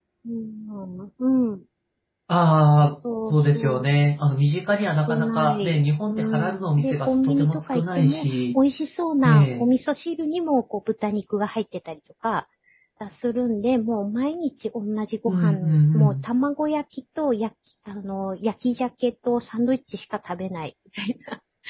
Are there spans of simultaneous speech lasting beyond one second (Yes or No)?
Yes